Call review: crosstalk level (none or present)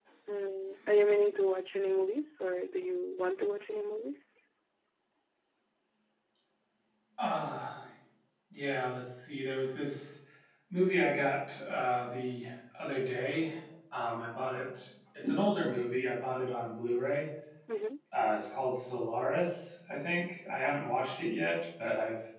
none